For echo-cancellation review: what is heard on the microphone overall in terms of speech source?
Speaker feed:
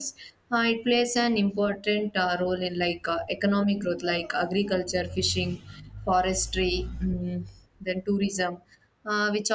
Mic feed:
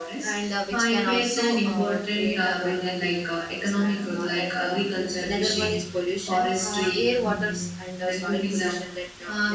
both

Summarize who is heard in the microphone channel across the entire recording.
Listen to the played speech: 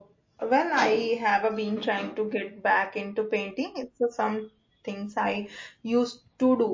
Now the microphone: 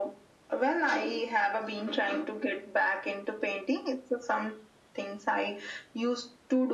echo only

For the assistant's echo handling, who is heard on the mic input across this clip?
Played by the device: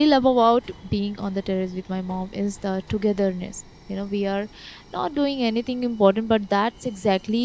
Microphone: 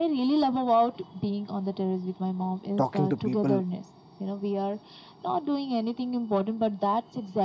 both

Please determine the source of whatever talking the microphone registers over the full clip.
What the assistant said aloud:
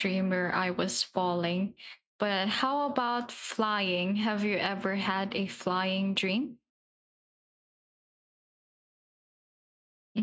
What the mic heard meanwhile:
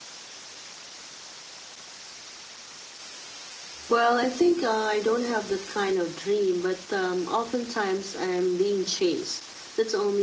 user only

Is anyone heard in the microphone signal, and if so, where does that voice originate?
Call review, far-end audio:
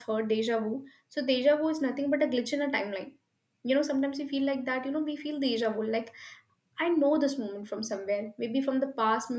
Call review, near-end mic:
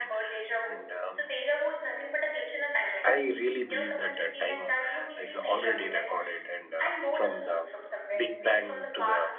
both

